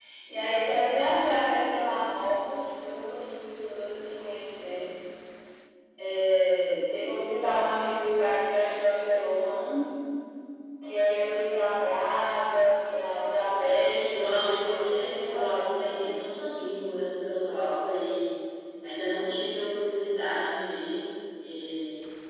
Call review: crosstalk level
present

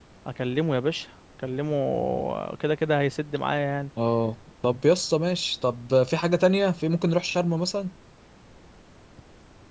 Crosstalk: none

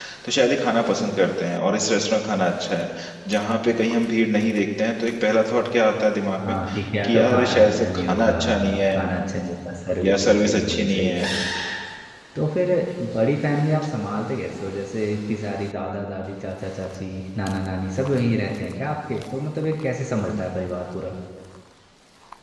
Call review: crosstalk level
present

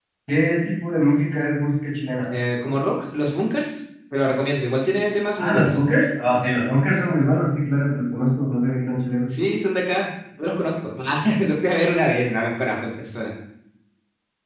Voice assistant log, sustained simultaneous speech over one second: none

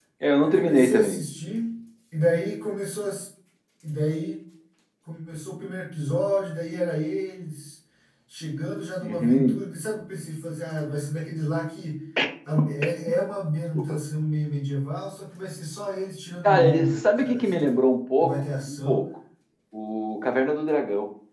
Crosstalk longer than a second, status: present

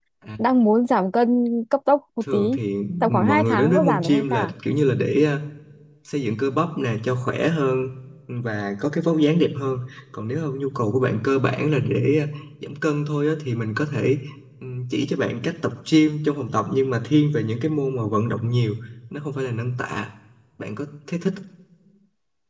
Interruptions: present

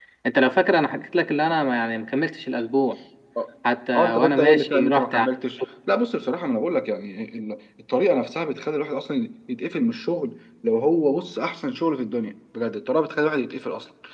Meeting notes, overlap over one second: present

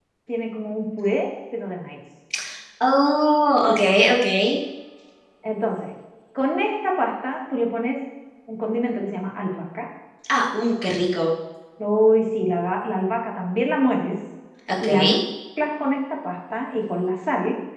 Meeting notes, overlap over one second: none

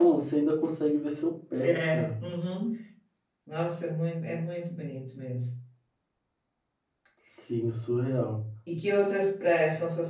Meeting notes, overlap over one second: none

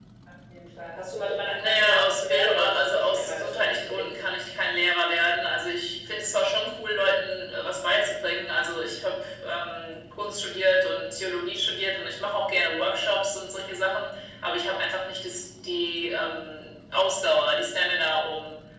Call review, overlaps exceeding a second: present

